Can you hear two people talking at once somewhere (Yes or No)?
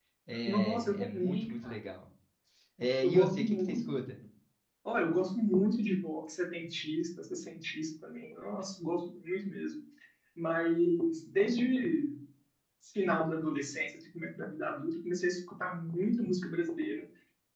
Yes